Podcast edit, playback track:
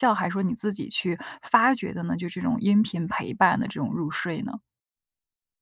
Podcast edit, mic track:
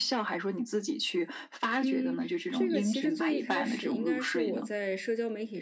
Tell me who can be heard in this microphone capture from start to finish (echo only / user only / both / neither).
both